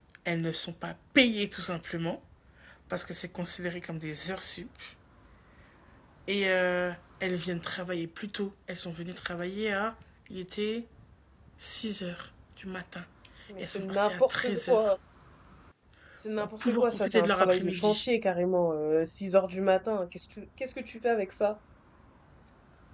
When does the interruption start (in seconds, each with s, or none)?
13.6 s